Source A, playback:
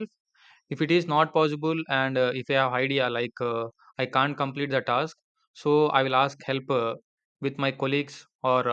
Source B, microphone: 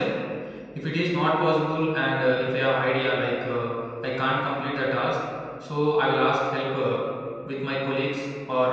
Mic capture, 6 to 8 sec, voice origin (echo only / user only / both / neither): echo only